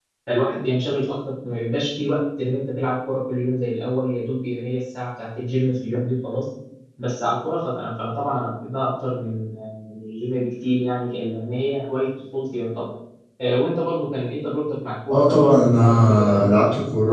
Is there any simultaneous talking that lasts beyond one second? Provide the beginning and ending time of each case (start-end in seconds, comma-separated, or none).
15.1-16.6